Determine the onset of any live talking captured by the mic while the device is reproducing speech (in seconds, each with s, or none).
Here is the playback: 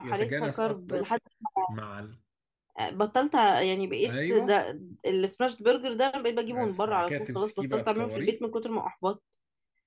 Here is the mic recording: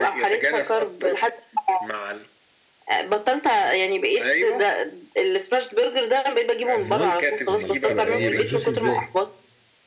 6.8 s